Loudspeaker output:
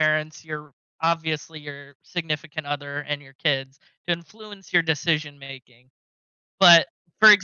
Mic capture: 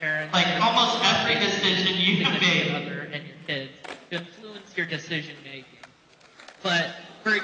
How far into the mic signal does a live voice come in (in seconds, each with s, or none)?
0.3 s